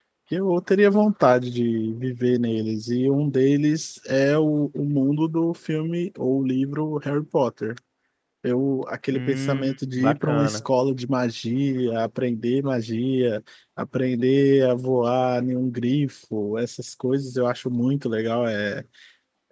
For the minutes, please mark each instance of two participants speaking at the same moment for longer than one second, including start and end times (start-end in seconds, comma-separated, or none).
9.1-10.6